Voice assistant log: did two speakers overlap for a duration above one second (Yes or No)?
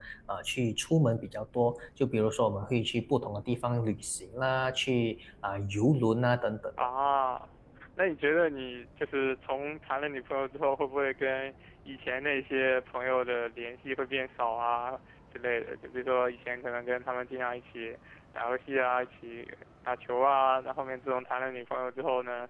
No